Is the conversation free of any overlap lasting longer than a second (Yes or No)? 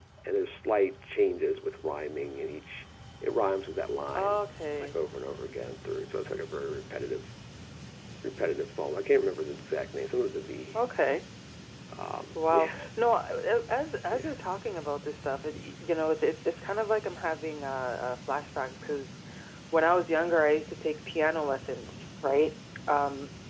Yes